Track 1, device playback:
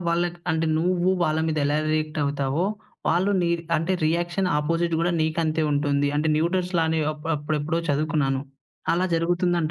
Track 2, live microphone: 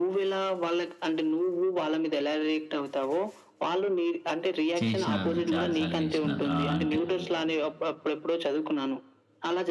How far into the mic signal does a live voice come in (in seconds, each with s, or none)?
4.8 s